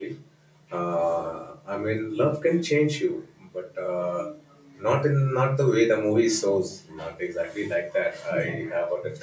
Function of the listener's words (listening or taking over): listening